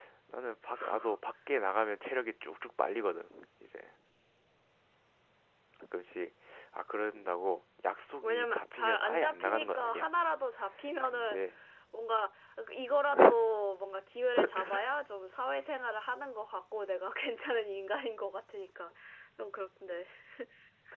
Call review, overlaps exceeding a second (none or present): present